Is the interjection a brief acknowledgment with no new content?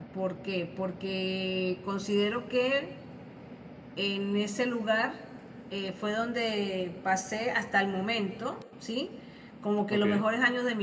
Yes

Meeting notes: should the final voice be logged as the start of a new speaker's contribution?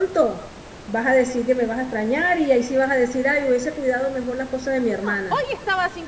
Yes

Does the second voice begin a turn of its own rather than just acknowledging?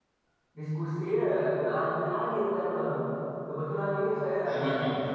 No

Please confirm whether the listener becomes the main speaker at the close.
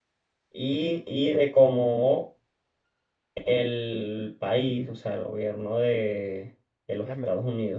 No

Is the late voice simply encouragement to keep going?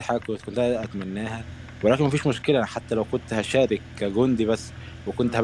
Yes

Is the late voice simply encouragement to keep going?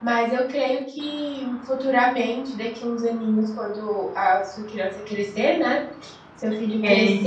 Yes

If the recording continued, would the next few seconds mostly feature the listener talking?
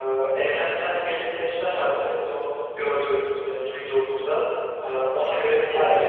Yes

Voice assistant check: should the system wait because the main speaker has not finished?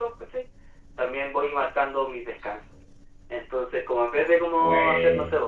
Yes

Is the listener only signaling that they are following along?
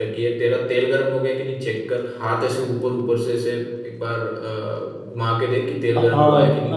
No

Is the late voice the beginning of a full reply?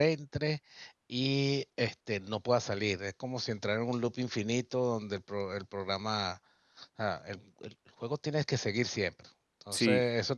No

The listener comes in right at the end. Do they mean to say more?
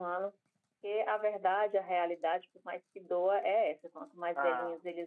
No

